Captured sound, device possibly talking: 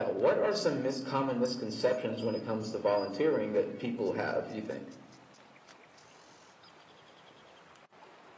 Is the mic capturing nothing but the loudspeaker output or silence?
Yes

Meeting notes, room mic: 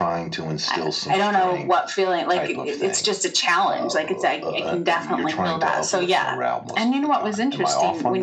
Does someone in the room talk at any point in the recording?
No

